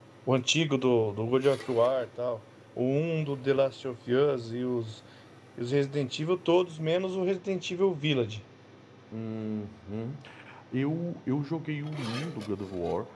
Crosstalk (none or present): none